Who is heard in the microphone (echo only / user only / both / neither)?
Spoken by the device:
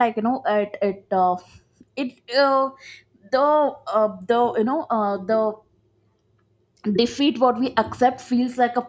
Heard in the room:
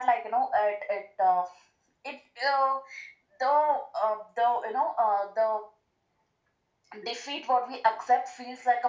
echo only